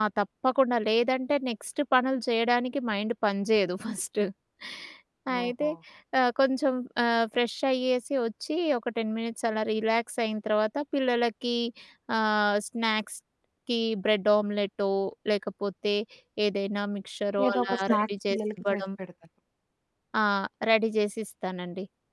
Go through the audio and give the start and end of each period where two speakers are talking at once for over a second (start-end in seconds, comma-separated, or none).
17.5-18.8